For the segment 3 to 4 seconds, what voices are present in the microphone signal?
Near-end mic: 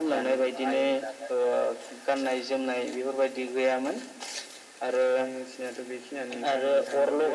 echo only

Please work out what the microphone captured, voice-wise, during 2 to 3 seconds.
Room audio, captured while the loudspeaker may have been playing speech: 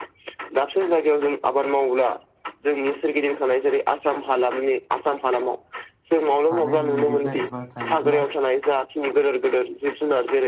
echo only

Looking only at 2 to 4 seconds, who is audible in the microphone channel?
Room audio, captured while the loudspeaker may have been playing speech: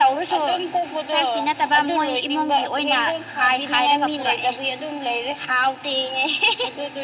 echo only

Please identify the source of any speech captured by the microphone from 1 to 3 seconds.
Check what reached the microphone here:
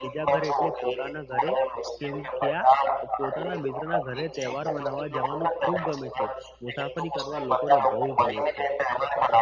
both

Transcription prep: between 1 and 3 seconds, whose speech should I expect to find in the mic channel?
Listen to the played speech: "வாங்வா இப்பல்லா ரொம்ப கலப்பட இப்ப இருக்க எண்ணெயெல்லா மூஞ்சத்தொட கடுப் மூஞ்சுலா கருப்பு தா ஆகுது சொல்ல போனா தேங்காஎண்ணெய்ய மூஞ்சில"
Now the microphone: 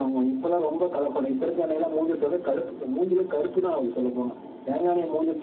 echo only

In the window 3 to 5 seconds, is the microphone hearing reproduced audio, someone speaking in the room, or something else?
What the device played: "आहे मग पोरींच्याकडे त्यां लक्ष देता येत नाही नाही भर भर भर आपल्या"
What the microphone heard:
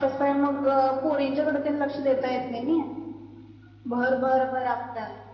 echo only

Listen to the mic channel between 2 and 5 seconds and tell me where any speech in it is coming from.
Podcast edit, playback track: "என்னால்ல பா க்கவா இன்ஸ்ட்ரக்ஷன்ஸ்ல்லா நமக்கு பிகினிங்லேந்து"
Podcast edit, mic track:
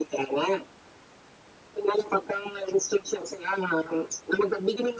echo only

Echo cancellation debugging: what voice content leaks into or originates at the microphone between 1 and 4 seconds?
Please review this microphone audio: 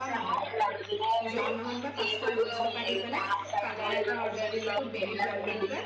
both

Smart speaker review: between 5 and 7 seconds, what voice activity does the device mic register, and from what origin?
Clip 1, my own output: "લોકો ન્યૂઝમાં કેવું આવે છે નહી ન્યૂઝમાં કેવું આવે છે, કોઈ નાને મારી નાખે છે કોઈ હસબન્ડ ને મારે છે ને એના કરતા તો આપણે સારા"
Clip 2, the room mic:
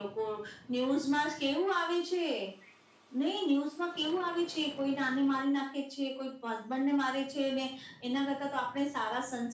echo only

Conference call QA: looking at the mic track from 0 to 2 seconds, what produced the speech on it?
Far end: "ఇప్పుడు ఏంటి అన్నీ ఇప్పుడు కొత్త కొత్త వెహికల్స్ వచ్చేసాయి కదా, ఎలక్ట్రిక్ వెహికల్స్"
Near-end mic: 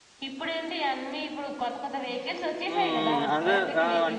echo only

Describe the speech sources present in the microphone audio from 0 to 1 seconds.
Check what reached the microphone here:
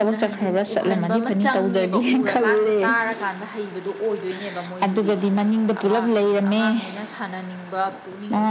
both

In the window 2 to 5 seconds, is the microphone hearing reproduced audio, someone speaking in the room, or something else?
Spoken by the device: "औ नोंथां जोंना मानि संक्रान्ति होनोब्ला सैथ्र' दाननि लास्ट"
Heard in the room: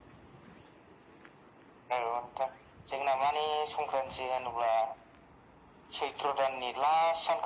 echo only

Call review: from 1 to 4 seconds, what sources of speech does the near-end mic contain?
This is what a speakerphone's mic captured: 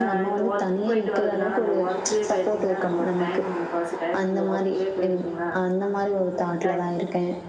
both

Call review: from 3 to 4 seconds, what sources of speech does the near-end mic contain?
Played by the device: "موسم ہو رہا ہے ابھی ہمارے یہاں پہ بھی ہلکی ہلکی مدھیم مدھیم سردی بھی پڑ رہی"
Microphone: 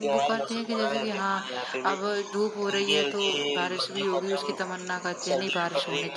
both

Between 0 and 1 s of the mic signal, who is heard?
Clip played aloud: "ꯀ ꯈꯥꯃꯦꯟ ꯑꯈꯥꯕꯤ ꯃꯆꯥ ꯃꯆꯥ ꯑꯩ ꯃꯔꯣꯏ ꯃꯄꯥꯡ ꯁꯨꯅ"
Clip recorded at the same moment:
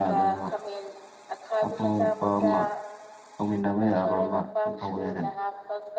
both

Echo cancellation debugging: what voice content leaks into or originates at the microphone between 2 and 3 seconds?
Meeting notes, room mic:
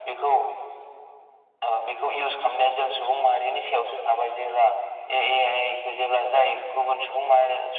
echo only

